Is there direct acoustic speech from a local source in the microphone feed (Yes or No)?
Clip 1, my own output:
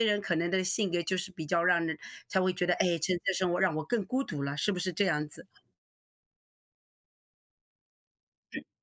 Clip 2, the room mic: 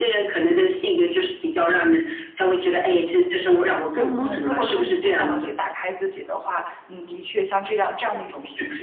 Yes